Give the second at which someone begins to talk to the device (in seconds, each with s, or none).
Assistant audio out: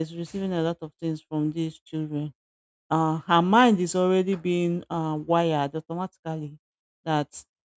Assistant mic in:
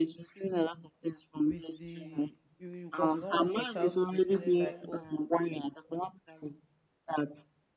1.4 s